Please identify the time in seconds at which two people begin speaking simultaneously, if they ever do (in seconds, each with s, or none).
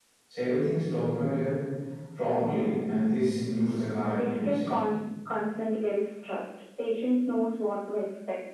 3.6 s